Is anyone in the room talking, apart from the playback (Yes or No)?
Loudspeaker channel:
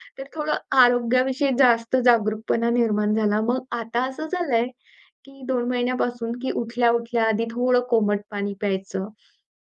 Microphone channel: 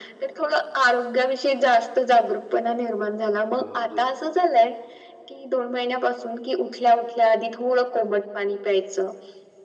Yes